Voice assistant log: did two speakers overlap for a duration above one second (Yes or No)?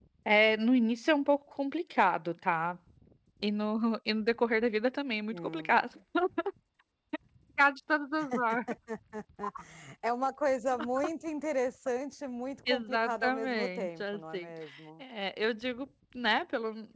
Yes